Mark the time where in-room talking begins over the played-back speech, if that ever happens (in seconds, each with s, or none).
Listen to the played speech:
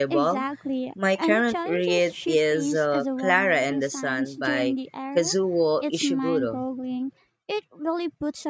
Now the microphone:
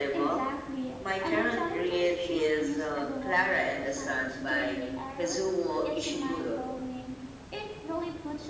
none